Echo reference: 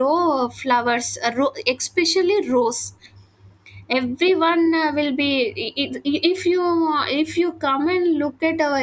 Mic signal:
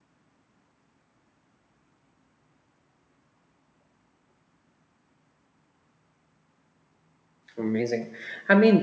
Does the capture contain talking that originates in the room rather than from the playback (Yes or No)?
Yes